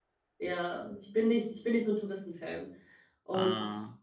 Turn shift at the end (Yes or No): No